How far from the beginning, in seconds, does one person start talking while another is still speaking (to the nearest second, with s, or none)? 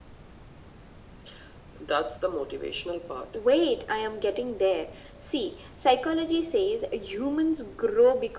none